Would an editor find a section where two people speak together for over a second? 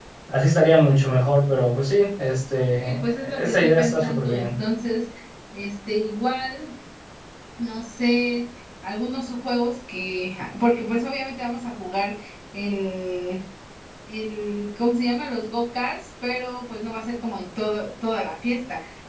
Yes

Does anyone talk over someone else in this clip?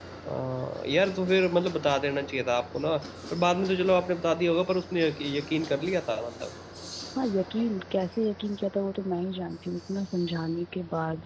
No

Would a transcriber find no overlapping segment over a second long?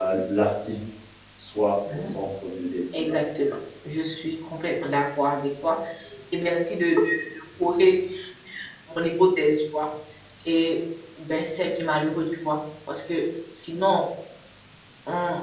Yes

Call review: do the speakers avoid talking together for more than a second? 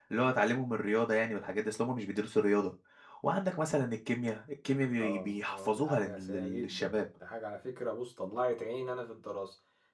No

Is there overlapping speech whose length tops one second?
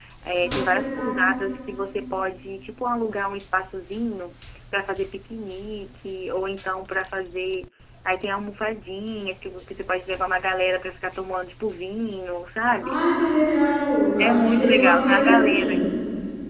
Yes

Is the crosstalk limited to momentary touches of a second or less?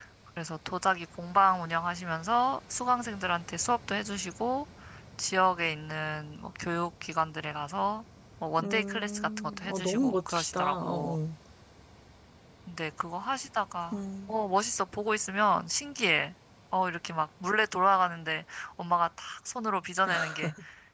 No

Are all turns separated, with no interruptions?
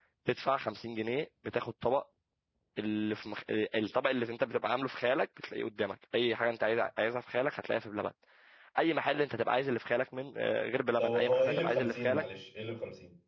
No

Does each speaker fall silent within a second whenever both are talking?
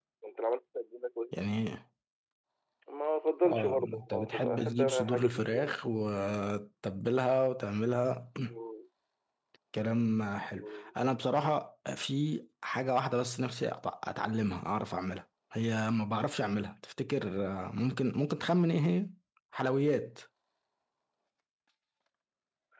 No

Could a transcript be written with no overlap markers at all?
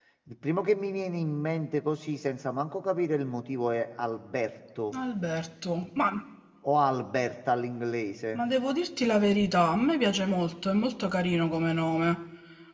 Yes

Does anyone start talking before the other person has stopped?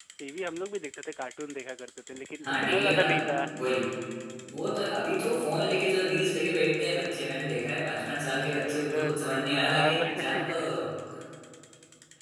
Yes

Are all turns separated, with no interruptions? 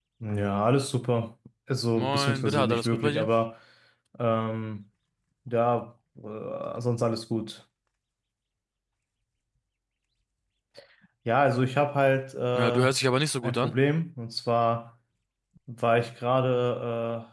No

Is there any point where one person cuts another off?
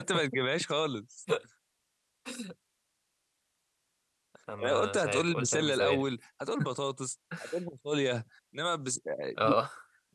Yes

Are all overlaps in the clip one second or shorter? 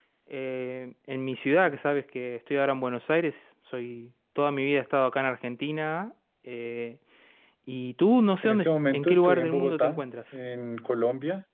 No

